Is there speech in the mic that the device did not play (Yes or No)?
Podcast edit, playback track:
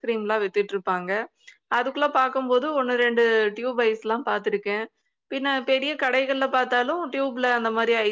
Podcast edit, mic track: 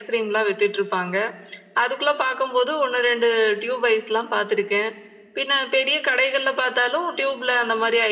No